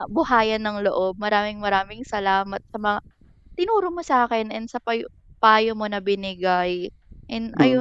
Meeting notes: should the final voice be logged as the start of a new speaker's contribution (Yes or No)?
Yes